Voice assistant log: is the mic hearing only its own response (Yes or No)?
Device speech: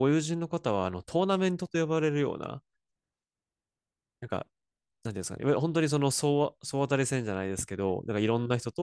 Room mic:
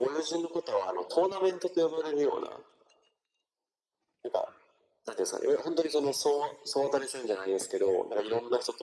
Yes